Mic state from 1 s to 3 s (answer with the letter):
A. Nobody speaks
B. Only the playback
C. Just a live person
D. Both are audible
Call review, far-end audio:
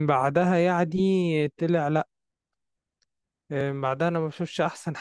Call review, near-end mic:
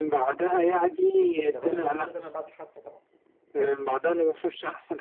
D